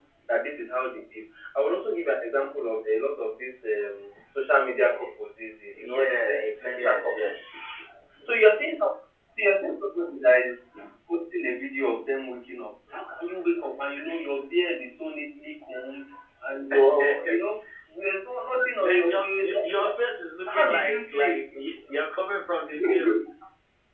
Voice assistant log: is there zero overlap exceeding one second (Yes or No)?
No